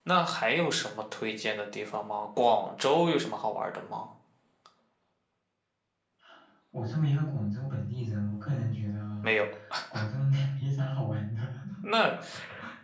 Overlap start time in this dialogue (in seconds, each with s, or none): none